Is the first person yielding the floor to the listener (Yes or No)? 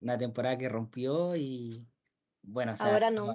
No